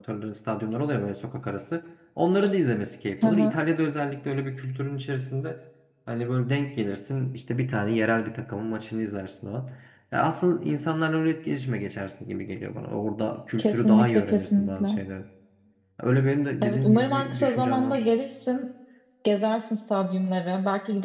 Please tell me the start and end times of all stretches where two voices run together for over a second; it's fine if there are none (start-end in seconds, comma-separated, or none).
13.6-15.0, 16.6-18.0